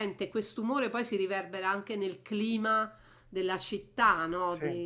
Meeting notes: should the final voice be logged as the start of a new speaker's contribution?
No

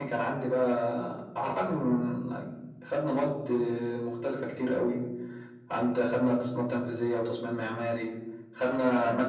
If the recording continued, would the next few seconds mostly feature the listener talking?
No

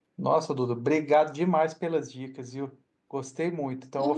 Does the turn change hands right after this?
No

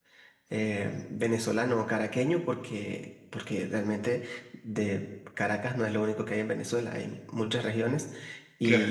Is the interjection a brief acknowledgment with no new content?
Yes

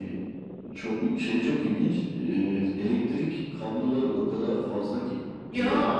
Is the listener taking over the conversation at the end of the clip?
No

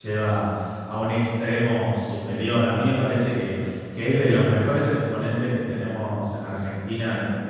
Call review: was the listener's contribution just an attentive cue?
Yes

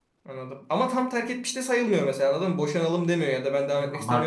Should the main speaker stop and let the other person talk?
Yes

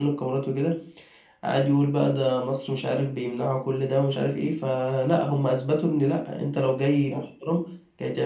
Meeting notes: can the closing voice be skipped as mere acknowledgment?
Yes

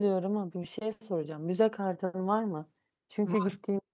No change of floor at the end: Yes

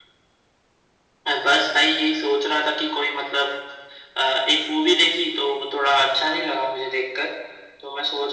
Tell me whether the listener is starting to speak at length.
No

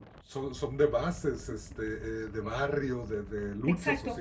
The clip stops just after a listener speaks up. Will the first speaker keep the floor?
No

